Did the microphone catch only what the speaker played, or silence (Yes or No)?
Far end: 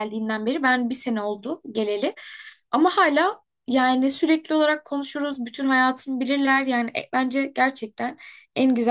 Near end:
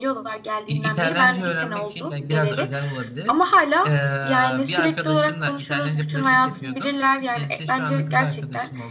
No